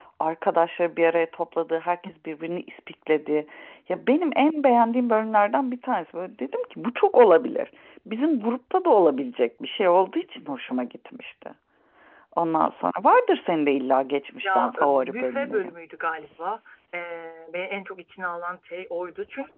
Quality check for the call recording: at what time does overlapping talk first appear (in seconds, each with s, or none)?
14.4 s